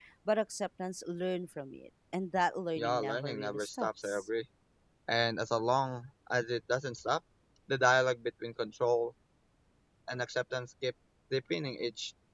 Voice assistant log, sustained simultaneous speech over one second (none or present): present